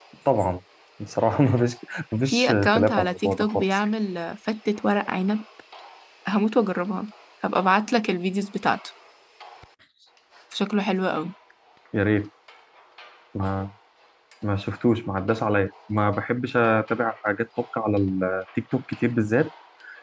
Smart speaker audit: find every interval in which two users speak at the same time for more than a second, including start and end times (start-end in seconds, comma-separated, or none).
2.3-3.6